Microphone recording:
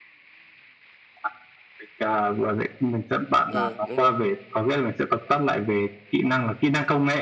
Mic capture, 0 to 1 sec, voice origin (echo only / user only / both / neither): neither